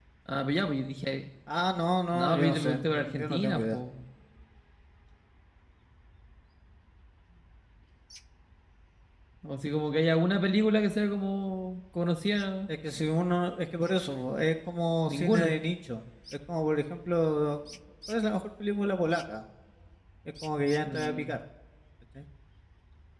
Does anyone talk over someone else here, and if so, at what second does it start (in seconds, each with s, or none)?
2.1 s